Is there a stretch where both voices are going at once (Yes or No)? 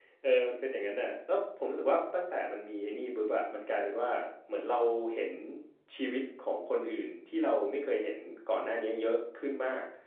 No